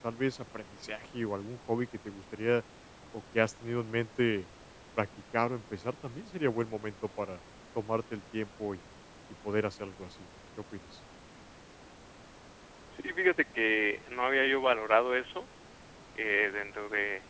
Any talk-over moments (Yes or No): No